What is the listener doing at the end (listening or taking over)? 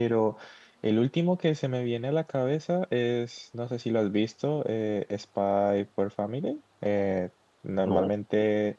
listening